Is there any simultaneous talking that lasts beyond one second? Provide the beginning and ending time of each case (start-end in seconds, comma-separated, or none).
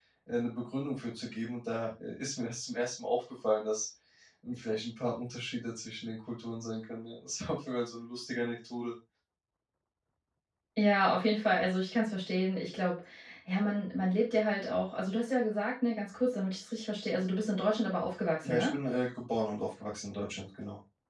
none